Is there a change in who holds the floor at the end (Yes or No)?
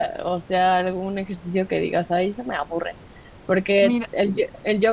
No